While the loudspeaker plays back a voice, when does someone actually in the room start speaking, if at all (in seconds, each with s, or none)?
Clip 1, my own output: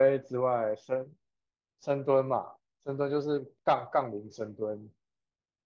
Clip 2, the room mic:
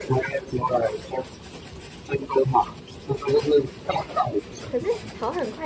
4.7 s